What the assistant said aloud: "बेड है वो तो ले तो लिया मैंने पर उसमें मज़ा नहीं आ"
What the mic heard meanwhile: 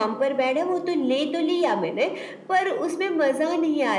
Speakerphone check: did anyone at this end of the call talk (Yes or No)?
No